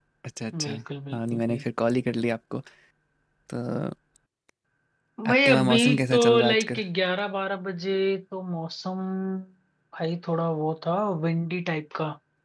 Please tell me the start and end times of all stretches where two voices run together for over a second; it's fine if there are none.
5.3-6.8

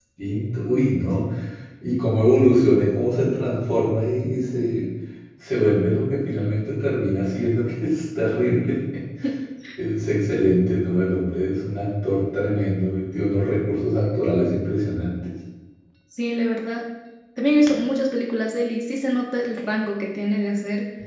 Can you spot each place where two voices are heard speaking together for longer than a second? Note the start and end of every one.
none

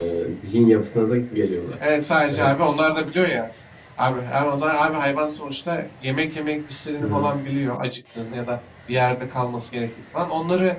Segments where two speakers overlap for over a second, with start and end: none

